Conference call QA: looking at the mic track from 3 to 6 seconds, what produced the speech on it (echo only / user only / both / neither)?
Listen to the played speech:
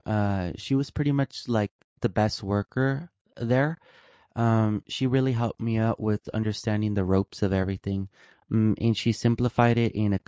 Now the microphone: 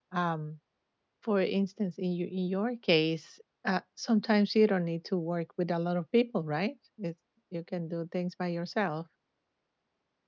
user only